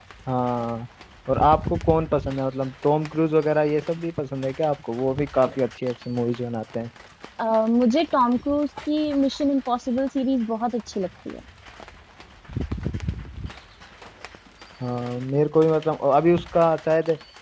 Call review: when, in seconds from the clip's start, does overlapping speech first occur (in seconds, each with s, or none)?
none